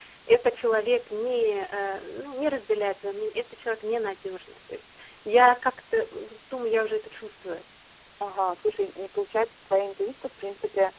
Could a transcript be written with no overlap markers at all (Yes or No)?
Yes